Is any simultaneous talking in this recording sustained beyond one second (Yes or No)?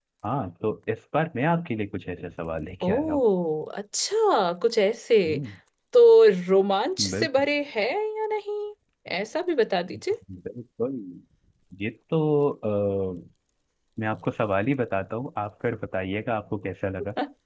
No